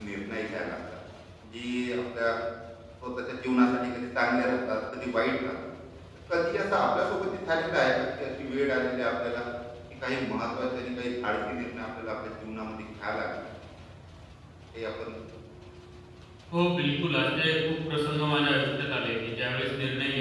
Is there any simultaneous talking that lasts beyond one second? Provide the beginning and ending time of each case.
none

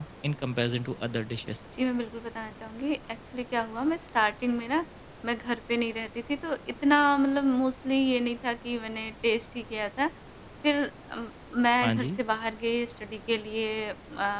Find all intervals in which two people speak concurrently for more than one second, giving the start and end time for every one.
none

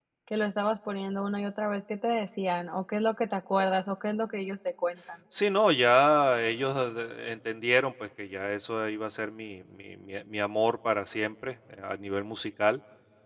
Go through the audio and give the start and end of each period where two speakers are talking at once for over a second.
none

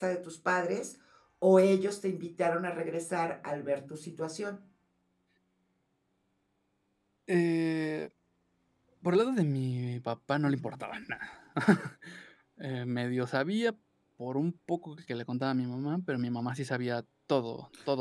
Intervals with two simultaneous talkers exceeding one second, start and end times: none

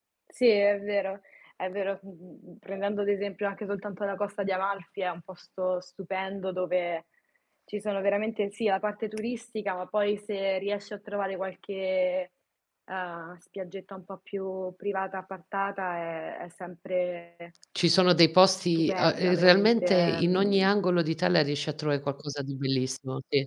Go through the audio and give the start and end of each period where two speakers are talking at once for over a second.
18.8-20.7

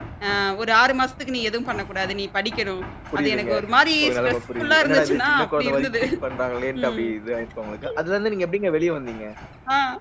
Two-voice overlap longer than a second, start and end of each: 4.0-5.9

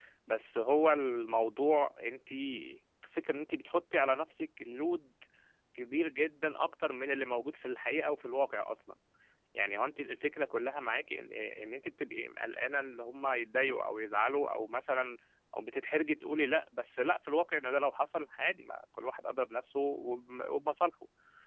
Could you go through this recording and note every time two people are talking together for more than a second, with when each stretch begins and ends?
none

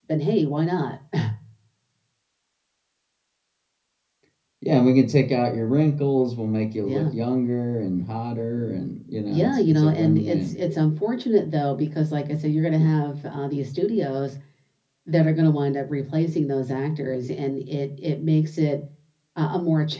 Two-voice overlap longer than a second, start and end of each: 9.3-10.6

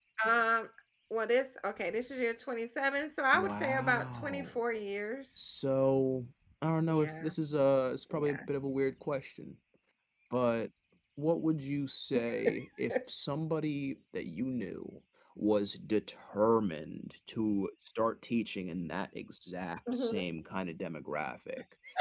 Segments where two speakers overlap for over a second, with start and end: 3.3-4.6

